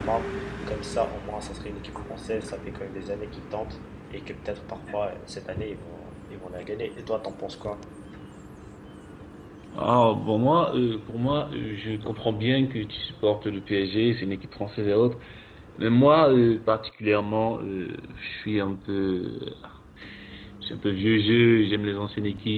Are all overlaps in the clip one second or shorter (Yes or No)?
Yes